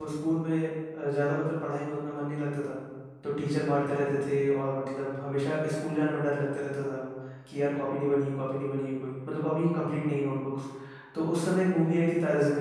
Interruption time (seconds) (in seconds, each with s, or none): none